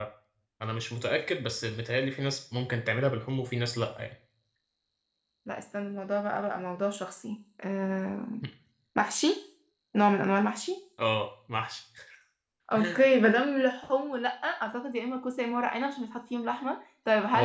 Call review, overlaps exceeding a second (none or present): none